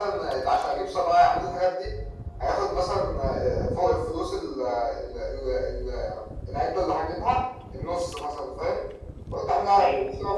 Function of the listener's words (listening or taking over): listening